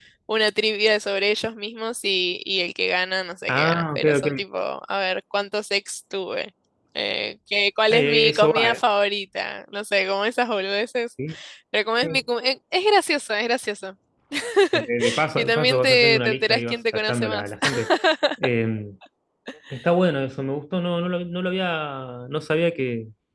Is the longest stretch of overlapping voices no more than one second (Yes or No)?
No